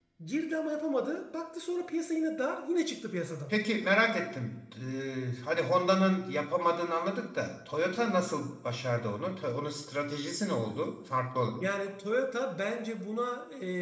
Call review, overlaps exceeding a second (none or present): none